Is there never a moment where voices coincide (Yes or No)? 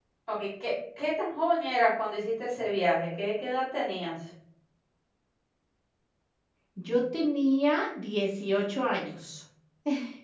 Yes